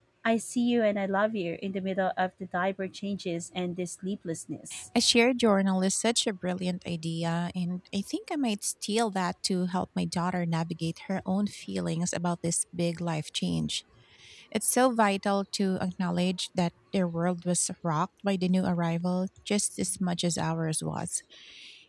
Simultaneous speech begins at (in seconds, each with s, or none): none